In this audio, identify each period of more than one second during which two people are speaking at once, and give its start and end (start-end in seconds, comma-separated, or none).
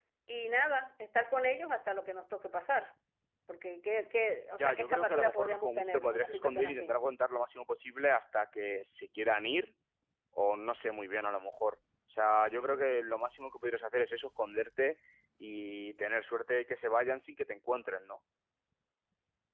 4.6-6.9